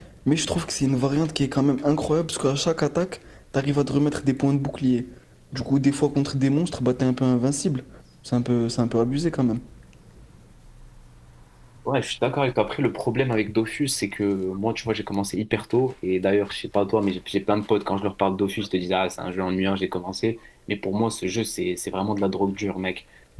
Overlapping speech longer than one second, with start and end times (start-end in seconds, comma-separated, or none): none